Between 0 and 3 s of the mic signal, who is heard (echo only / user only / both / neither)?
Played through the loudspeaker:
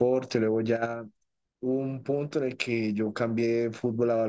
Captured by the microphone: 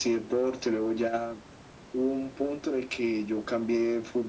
echo only